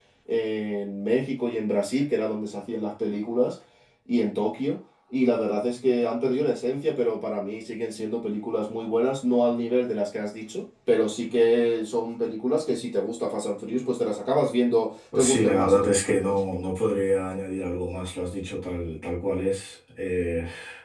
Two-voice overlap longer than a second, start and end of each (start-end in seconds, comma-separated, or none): 15.2-16.4